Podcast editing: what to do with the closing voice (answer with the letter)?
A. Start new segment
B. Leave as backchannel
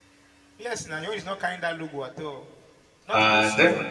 A